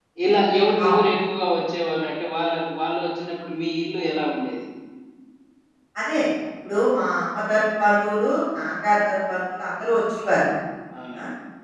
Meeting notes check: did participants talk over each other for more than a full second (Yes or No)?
No